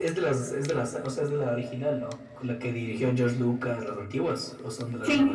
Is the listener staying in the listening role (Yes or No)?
No